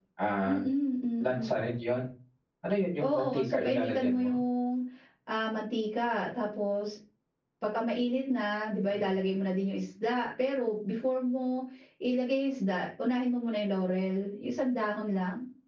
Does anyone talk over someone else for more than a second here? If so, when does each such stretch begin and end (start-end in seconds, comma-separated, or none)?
3.0-4.4